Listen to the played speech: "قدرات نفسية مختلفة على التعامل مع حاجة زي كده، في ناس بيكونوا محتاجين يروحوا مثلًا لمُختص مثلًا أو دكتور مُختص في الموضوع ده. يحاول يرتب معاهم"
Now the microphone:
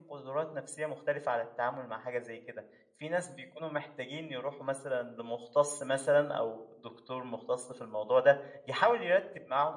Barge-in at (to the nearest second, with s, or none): none